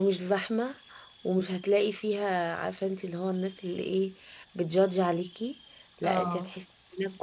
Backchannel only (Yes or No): Yes